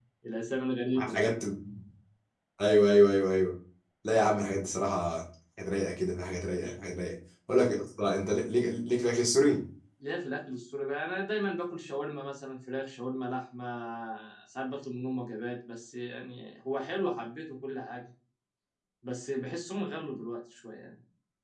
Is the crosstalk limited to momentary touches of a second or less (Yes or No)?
Yes